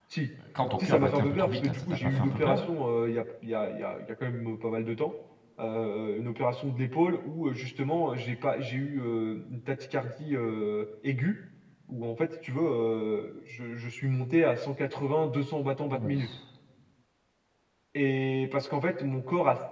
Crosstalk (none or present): present